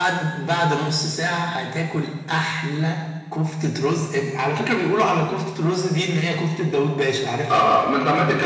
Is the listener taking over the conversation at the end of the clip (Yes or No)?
Yes